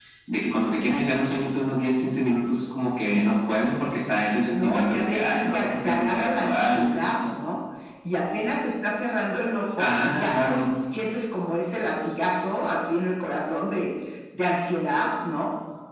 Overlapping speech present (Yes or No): Yes